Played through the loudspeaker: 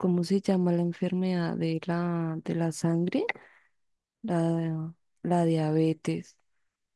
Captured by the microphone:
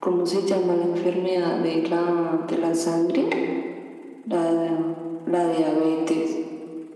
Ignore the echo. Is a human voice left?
No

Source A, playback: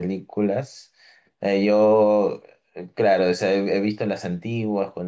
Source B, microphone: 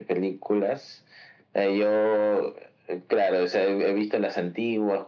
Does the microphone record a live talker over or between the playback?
No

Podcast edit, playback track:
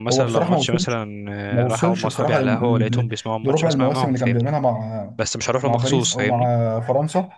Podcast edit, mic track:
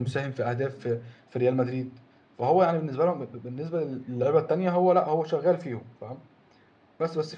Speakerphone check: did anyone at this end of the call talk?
Yes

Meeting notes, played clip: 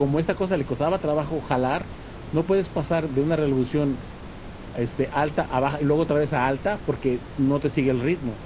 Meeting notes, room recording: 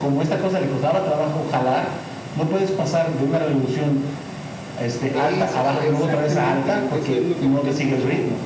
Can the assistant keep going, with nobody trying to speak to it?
No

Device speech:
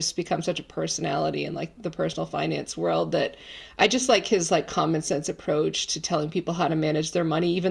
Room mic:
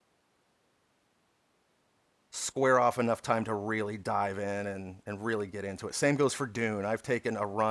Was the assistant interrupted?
Yes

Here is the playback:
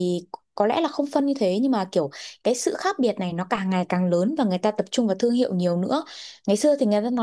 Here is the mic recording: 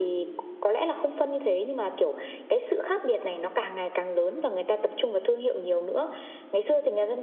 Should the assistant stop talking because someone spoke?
No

